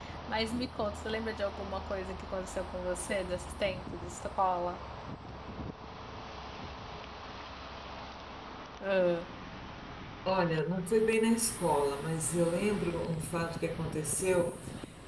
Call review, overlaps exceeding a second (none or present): none